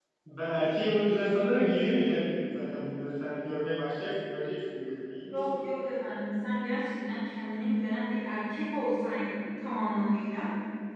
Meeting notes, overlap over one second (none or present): none